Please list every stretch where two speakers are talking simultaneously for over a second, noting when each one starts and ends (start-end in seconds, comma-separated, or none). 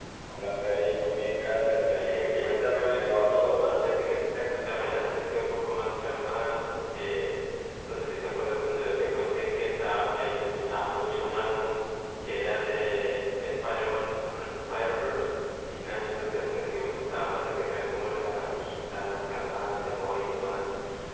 1.8-3.6